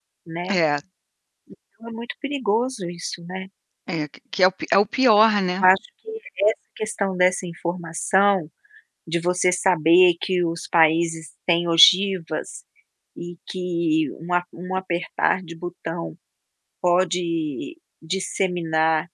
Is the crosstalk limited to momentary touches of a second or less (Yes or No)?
Yes